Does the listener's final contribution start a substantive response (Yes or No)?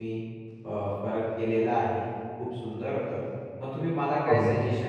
No